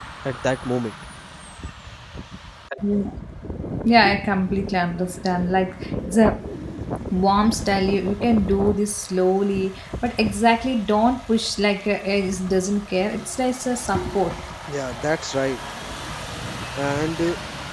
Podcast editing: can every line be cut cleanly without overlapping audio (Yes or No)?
Yes